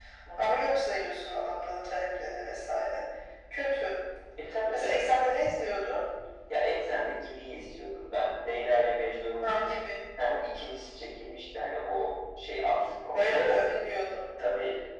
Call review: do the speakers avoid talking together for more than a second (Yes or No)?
Yes